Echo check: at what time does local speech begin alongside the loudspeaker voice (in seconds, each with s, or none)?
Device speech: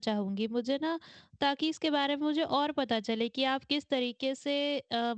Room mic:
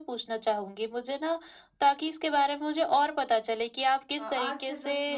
4.2 s